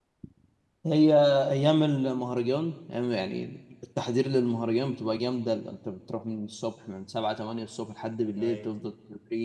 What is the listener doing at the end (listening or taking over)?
listening